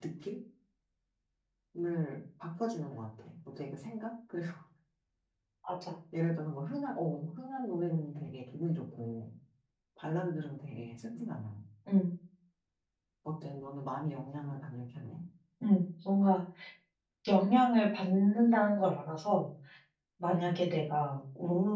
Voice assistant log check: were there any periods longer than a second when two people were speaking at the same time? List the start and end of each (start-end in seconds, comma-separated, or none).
none